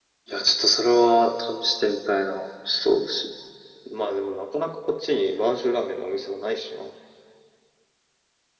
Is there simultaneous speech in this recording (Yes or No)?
No